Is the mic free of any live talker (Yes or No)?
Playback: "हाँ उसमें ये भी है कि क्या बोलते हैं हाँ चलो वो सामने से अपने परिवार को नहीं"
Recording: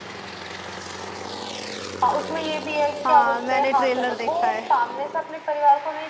No